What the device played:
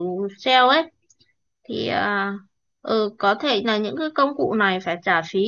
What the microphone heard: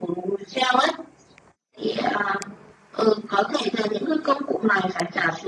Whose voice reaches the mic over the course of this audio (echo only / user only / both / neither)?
echo only